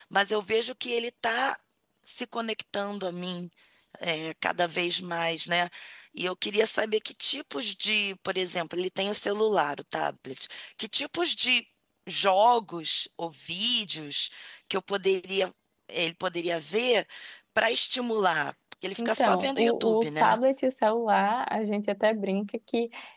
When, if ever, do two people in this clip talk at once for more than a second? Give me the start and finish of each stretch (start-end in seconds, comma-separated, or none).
19.0-20.4